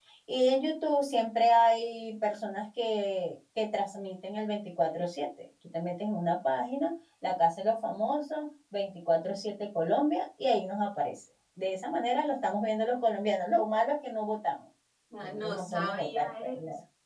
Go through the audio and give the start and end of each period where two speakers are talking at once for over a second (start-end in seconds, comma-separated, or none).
15.2-16.5